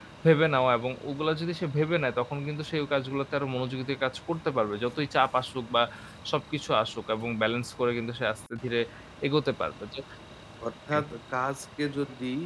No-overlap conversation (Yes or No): Yes